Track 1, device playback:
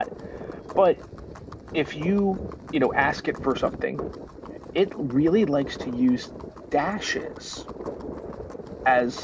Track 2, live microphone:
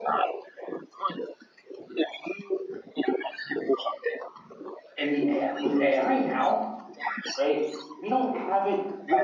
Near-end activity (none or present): present